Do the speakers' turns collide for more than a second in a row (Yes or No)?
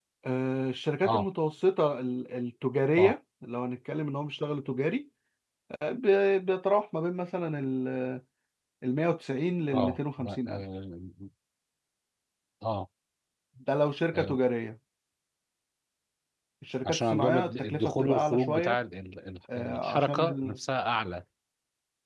Yes